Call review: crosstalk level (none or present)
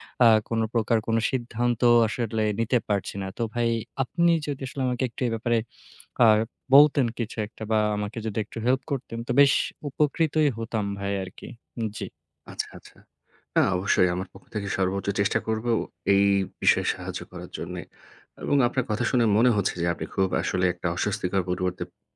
none